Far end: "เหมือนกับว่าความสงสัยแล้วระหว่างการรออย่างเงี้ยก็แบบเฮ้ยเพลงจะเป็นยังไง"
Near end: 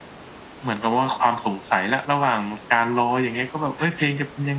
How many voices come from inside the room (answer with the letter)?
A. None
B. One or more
A